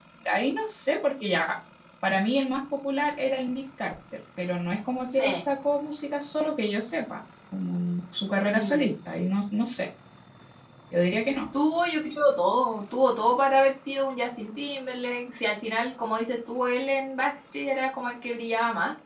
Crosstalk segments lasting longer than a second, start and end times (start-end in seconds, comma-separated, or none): none